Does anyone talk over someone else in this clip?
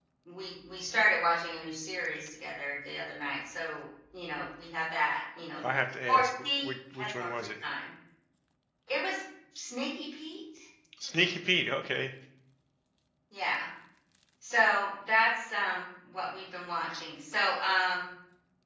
Yes, from 6.1 s

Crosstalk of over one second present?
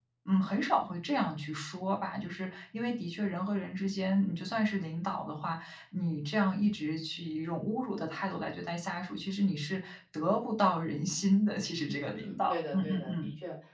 Yes, from 12.1 s

